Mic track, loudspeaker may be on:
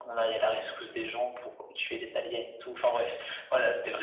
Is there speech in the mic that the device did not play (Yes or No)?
No